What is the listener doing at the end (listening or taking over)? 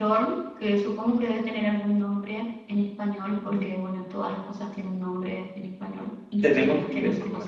taking over